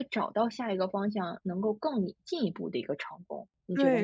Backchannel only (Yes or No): No